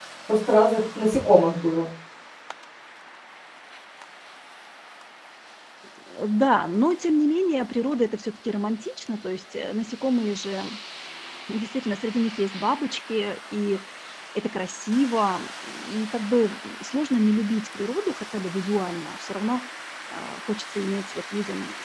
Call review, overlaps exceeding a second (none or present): none